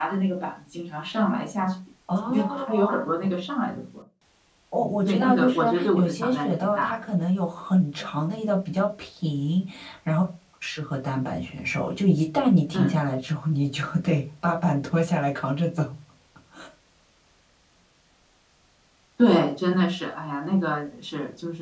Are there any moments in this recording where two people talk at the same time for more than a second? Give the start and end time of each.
4.8-7.0

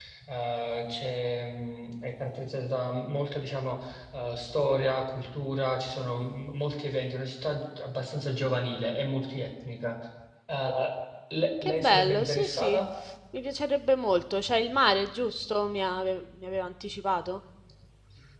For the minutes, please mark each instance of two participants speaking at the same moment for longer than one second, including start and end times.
11.6-12.8

